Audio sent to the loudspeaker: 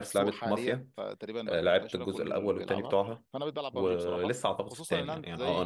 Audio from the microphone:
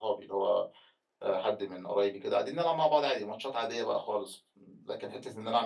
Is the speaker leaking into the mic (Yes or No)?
No